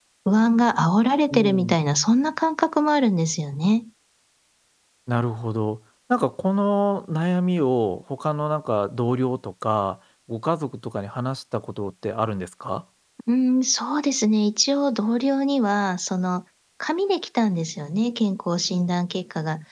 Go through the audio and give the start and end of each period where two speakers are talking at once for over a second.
none

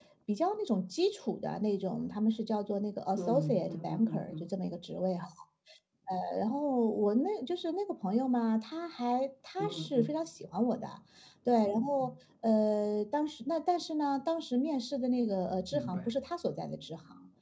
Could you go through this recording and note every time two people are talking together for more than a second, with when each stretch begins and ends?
3.2-4.4

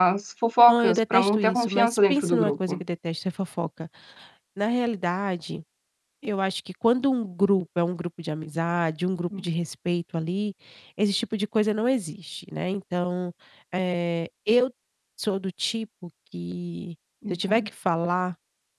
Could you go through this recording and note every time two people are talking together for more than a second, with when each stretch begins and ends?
0.7-2.8

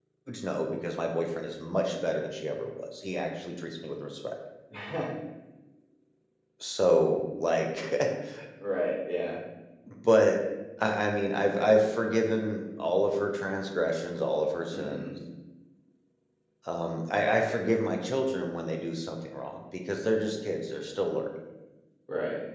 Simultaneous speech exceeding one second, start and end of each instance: none

